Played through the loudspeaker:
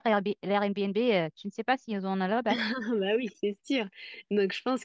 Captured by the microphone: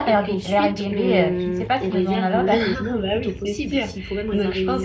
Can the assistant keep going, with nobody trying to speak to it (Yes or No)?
No